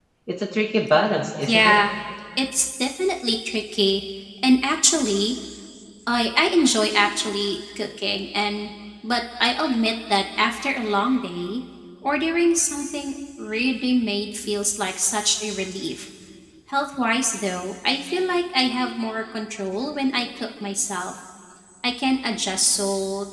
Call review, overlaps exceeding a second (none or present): none